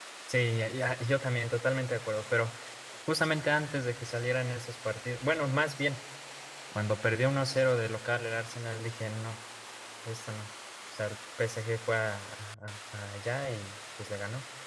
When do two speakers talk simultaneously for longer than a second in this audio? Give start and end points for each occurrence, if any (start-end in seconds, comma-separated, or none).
none